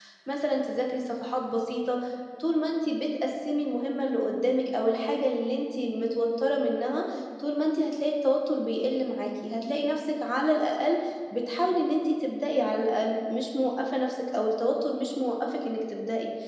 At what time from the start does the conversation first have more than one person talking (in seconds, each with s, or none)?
none